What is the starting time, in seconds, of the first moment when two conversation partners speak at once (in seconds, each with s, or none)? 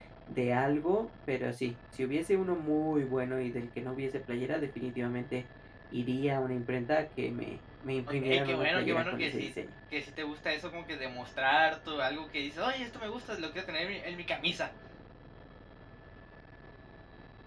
8.2 s